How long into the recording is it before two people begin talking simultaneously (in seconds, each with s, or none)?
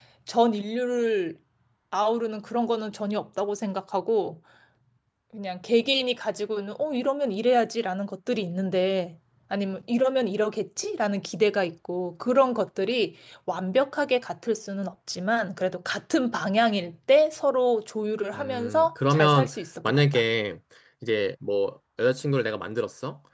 18.3 s